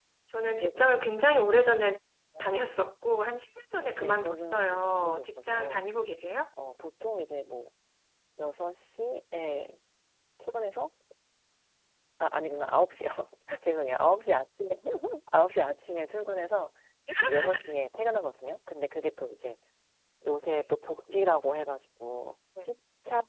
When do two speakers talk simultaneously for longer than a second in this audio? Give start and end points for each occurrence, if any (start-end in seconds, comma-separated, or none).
4.0-5.8